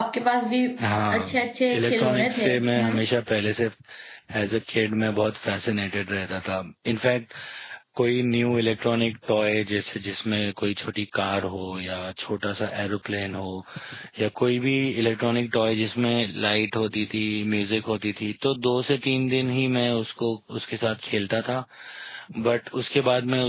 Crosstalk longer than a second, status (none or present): present